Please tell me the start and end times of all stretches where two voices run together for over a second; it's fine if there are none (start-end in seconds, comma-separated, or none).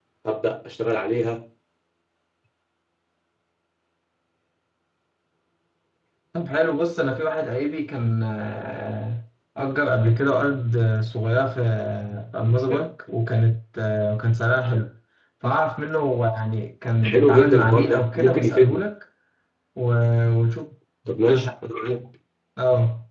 17.0-18.9